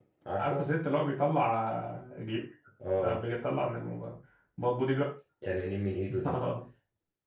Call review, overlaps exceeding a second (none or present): none